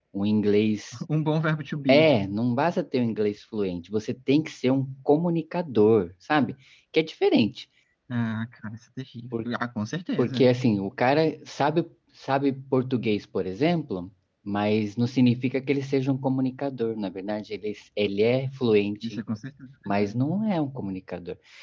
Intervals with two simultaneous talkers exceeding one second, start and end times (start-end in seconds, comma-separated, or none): none